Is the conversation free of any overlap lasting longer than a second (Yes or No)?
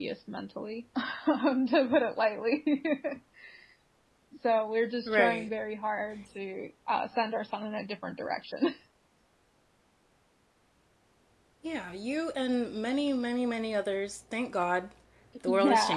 Yes